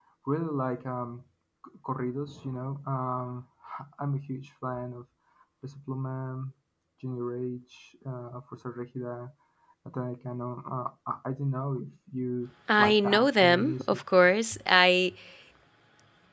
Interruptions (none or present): present